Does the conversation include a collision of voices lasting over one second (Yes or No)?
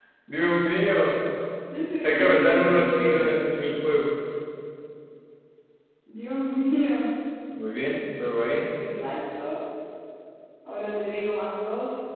Yes